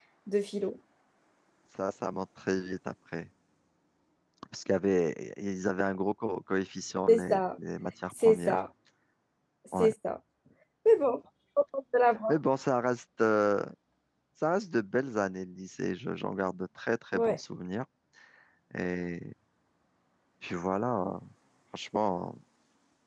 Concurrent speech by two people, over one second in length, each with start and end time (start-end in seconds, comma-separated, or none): none